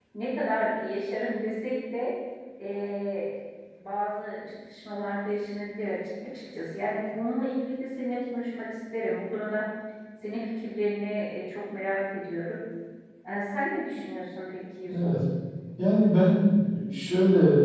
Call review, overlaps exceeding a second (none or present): none